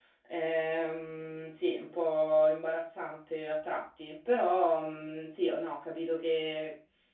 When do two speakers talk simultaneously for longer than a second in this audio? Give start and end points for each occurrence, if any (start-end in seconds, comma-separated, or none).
none